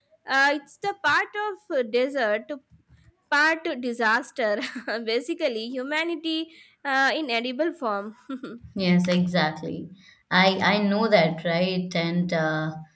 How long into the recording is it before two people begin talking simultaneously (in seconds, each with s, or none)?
none